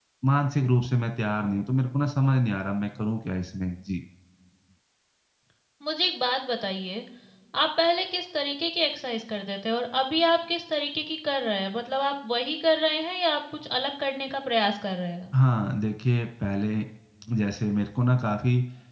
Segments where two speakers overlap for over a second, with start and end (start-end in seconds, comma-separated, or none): none